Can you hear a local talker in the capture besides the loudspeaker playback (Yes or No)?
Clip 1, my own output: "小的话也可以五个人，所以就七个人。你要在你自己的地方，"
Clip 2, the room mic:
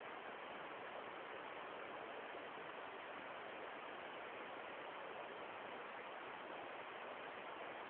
No